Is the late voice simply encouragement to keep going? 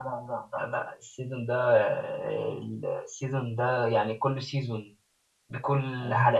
Yes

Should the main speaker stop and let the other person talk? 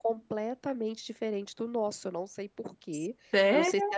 No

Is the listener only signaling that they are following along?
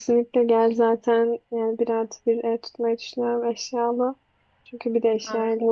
Yes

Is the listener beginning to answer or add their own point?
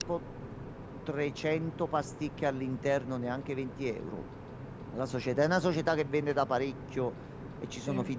No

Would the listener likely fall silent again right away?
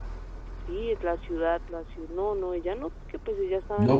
No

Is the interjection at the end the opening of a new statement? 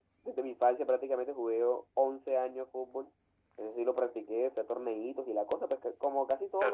Yes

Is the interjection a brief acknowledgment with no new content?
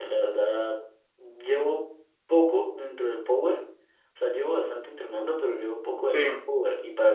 Yes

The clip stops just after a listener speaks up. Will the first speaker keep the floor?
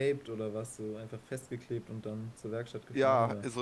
No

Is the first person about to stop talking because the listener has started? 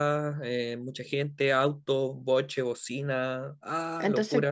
Yes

